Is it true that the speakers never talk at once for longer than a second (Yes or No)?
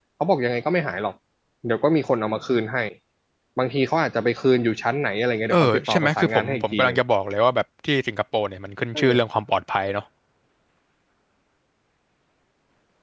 No